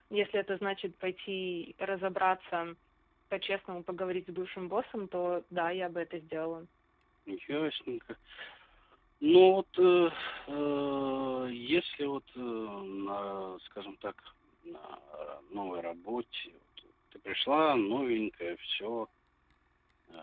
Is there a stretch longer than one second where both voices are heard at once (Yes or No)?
No